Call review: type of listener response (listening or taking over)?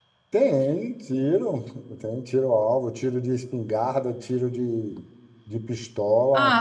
taking over